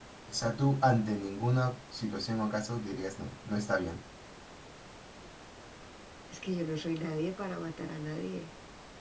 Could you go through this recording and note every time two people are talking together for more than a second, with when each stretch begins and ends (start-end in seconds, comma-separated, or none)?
none